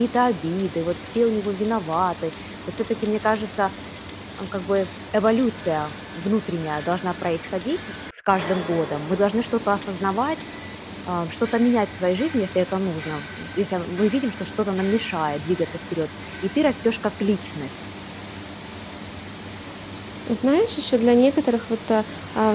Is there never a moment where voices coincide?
Yes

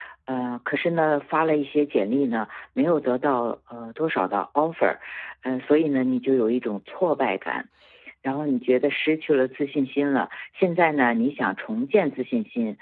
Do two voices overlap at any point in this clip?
No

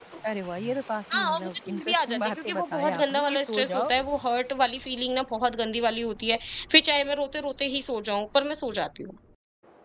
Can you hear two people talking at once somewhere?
Yes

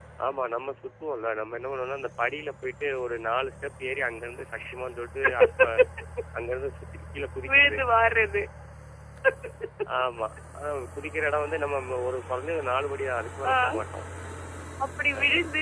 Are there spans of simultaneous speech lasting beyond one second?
No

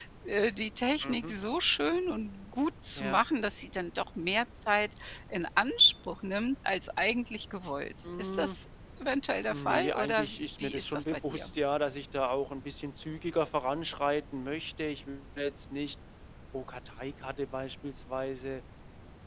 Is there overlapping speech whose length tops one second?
Yes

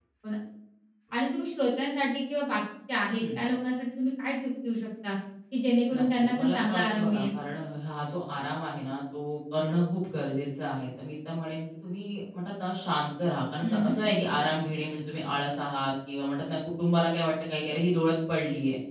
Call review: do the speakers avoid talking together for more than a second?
No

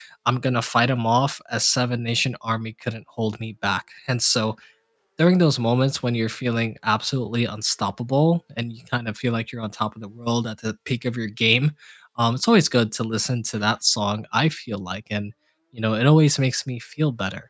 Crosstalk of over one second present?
No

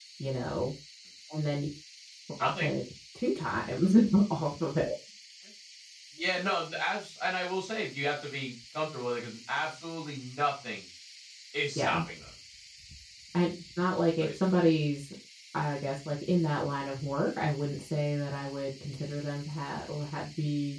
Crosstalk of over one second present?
No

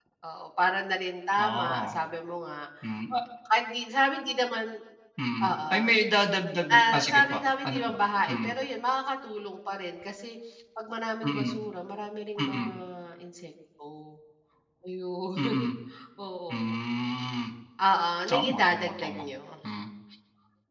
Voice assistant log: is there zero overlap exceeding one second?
No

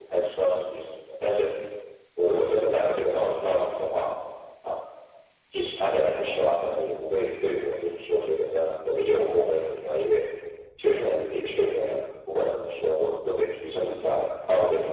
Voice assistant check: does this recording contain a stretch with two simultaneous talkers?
No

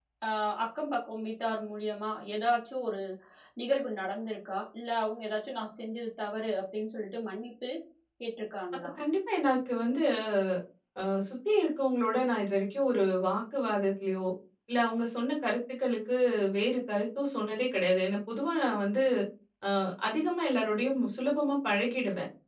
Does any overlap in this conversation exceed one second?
No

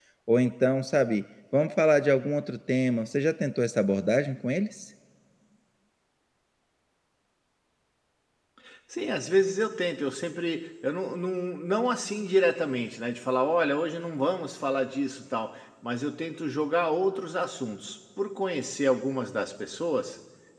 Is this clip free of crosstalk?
Yes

